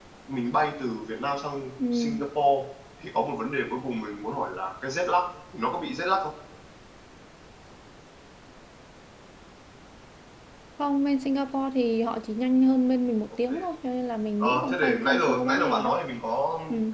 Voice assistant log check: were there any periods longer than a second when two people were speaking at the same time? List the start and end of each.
14.4-15.9

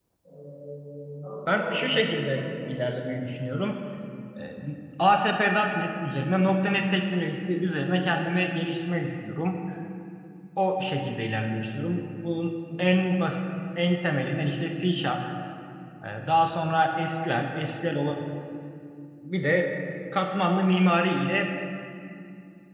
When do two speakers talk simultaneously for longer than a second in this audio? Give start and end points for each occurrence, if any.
1.5-3.1

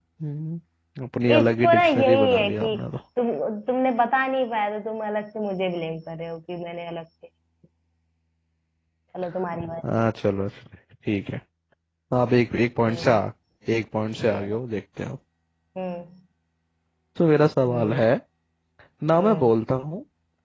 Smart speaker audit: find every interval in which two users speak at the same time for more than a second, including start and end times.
1.4-2.8

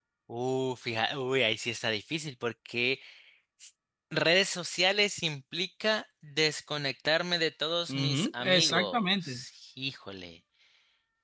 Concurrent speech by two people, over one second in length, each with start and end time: 7.9-9.4

